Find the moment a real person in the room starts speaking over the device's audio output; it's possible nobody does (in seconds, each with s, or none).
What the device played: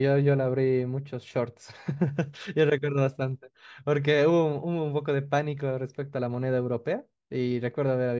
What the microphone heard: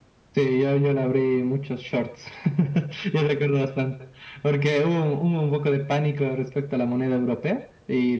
none